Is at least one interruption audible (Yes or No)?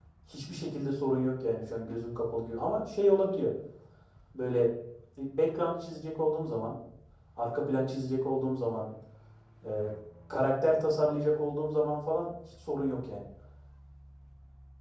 No